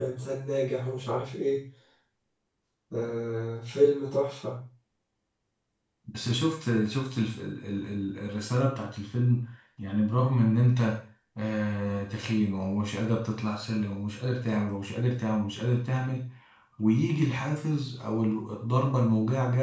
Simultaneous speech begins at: none

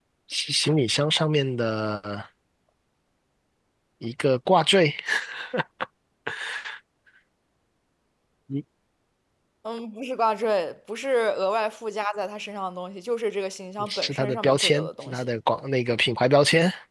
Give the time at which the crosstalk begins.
13.8 s

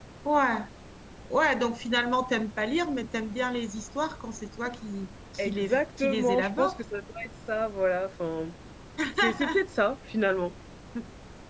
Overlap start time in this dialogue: 5.4 s

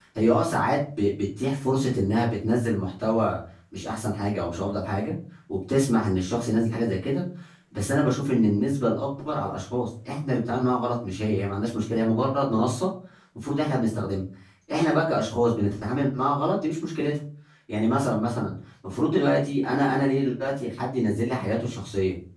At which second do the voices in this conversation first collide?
none

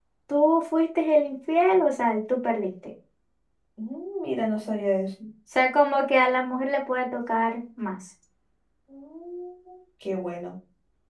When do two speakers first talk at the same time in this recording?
none

